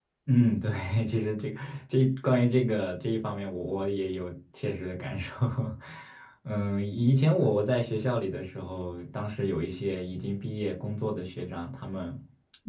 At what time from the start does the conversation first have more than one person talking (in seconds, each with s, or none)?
none